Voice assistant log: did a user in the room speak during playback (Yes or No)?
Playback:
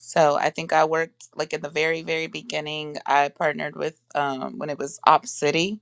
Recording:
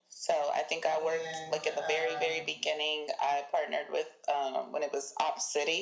Yes